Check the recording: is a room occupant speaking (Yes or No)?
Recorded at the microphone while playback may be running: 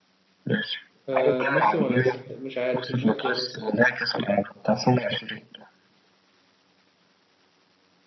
Yes